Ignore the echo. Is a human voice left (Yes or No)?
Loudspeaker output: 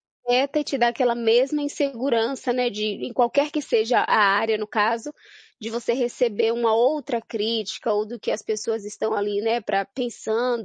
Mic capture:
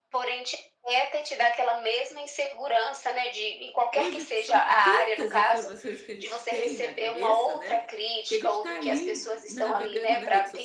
Yes